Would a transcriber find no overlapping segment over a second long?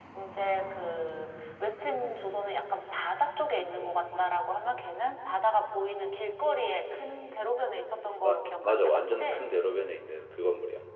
No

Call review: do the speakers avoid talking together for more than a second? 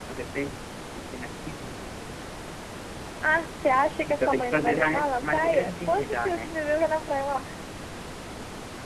No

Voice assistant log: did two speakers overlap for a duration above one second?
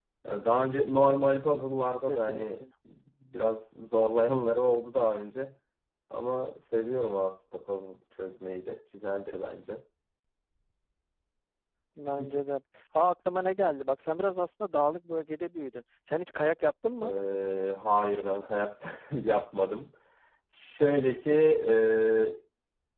No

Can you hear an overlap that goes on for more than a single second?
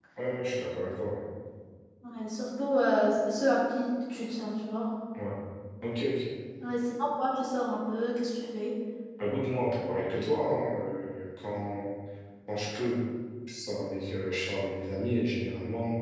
No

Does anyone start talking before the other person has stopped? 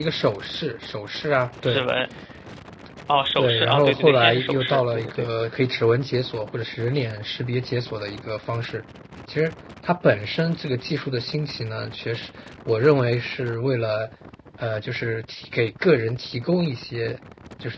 Yes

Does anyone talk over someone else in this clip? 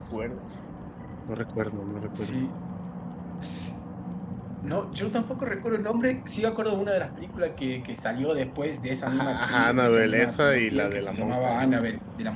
Yes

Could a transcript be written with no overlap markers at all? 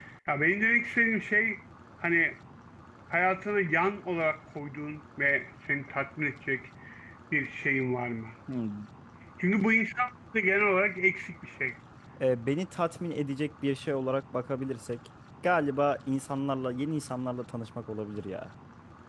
Yes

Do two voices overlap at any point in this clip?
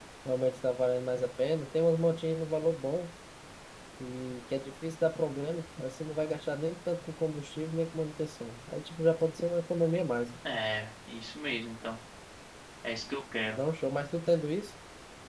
No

